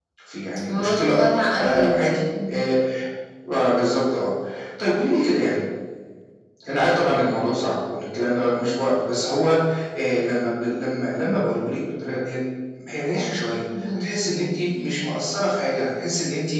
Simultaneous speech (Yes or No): Yes